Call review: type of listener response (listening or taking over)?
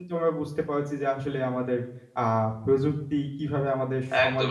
taking over